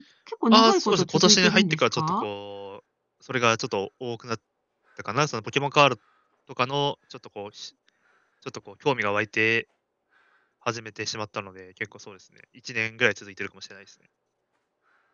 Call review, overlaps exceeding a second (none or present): present